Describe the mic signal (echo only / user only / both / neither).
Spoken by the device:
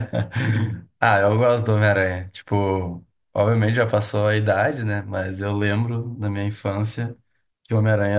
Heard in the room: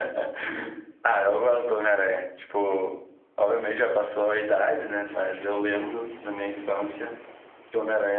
echo only